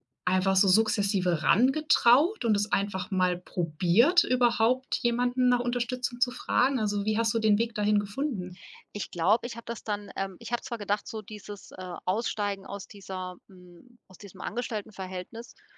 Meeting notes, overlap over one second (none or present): none